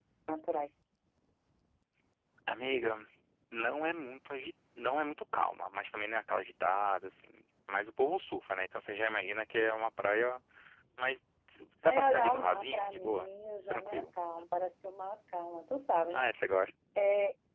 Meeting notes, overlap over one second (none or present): present